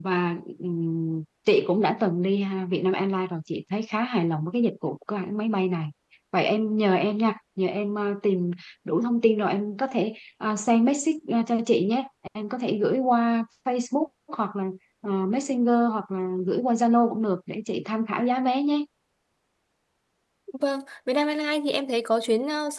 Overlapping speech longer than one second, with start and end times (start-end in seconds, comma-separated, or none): none